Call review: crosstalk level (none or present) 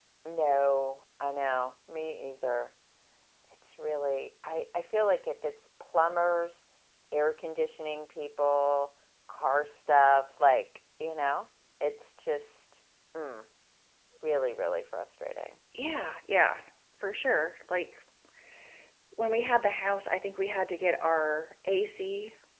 none